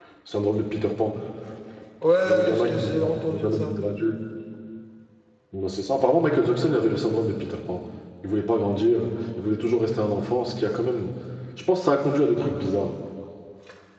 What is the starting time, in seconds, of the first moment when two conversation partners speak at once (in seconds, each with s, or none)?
2.2 s